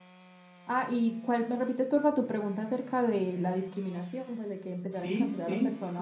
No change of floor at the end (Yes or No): No